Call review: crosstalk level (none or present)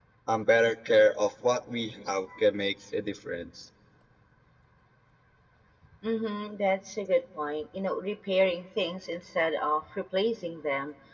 none